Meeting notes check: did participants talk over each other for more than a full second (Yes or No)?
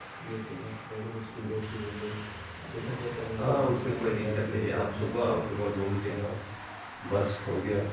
Yes